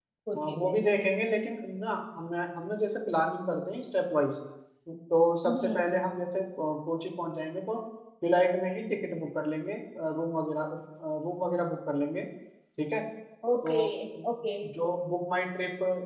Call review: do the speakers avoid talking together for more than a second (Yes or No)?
Yes